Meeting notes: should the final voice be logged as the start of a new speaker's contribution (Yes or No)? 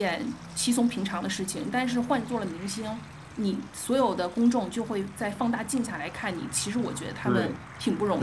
Yes